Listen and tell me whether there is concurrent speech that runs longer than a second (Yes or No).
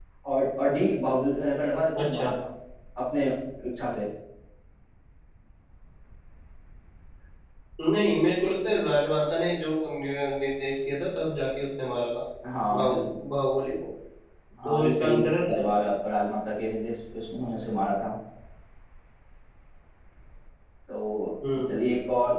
Yes